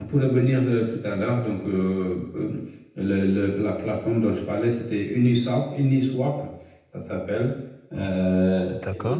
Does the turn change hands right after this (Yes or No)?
Yes